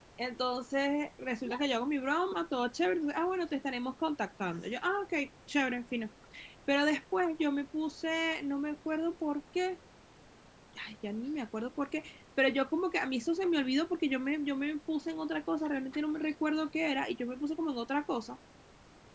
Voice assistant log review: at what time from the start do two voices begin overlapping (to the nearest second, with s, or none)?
none